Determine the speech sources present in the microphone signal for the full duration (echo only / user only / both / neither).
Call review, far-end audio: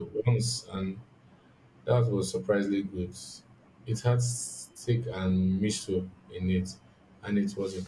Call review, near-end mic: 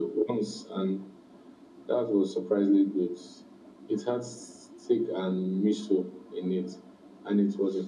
echo only